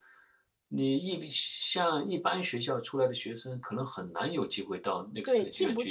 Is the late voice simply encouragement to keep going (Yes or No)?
No